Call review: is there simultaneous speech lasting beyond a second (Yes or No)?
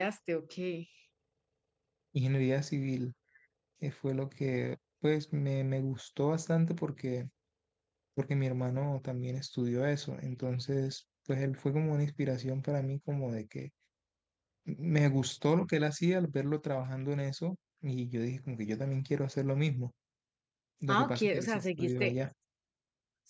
Yes